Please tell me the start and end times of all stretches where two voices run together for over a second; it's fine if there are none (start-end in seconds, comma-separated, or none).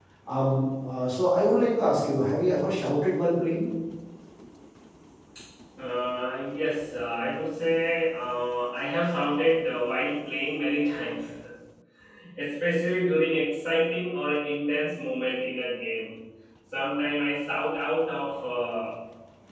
none